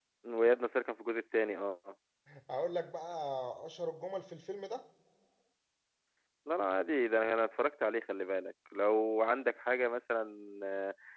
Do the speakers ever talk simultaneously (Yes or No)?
No